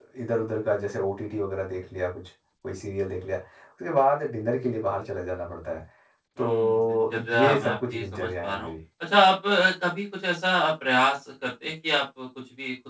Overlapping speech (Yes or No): Yes